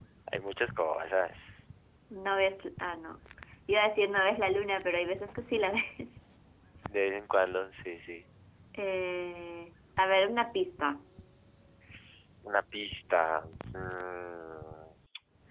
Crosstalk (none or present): none